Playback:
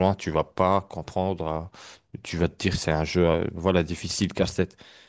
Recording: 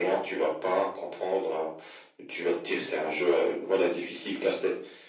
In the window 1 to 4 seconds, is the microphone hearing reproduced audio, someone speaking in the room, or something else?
echo only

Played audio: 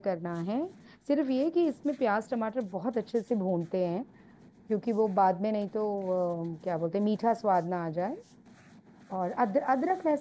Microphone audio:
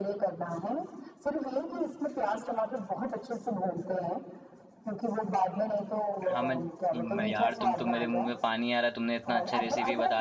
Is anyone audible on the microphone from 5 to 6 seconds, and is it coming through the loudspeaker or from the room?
echo only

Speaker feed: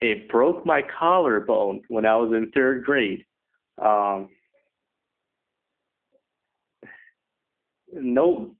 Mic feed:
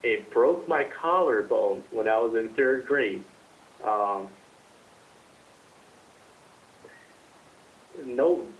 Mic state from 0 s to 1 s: echo only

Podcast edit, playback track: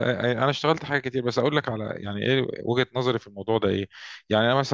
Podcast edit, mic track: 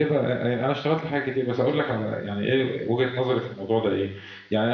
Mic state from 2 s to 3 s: echo only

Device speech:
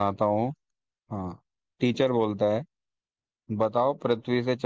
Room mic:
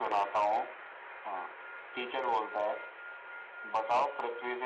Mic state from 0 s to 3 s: echo only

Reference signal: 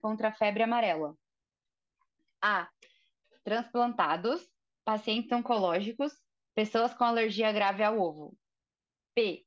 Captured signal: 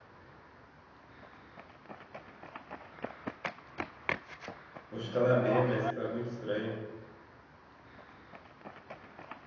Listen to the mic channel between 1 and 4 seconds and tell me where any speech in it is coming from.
neither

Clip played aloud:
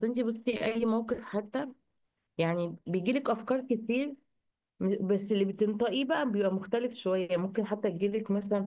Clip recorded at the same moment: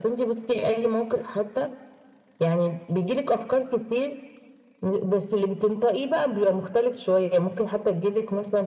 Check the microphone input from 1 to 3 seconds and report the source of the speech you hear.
echo only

